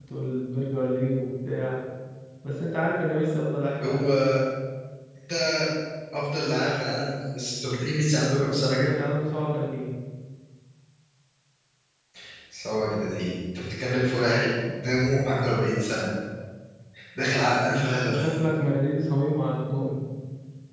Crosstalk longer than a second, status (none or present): none